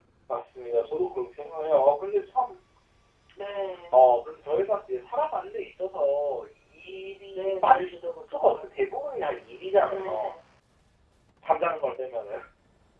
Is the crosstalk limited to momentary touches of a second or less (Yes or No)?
No